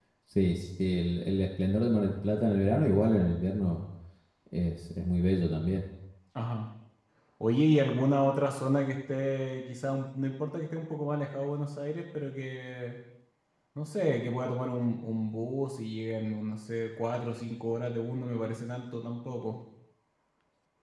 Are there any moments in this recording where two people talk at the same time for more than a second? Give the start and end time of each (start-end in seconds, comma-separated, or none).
none